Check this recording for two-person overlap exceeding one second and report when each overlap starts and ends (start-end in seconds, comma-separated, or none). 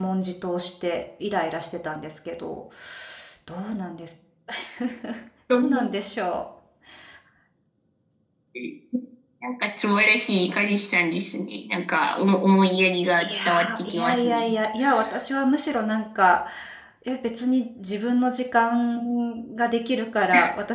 13.2-14.6